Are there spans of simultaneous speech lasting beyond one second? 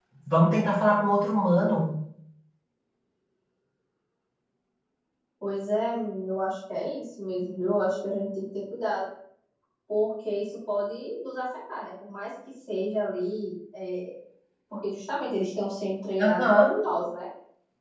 No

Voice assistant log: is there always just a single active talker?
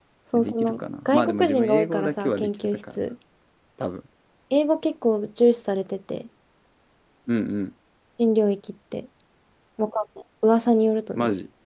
No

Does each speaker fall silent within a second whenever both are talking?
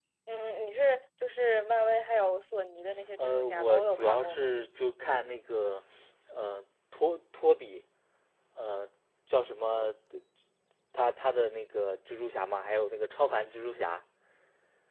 No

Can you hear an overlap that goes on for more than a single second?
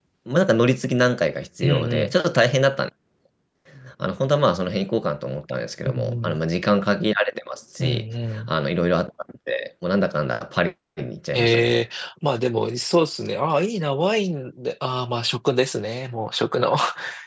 No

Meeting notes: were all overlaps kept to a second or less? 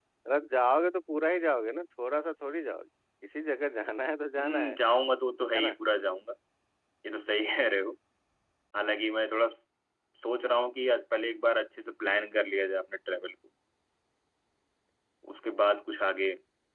Yes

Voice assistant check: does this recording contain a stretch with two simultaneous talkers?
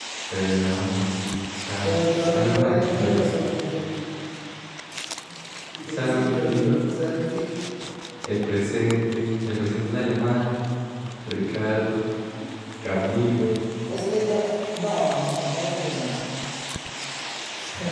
Yes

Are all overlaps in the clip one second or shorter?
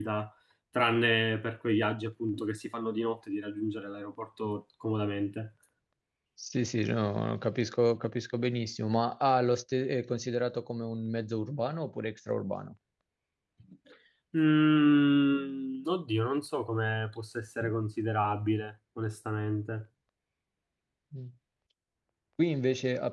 Yes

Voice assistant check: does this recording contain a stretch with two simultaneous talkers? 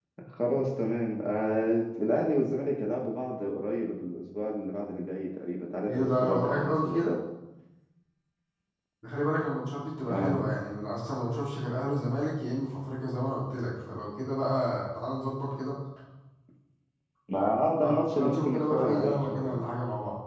Yes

